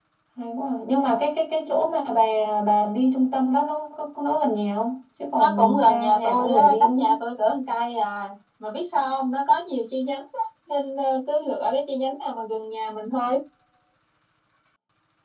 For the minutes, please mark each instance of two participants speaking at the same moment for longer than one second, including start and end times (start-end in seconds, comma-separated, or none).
5.4-7.1